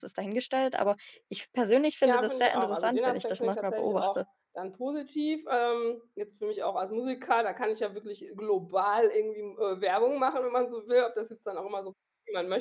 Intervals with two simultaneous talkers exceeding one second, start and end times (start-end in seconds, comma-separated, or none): 2.0-4.2